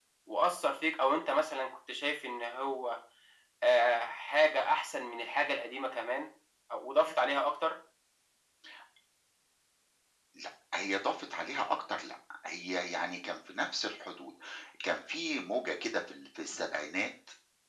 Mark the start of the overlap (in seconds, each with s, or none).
none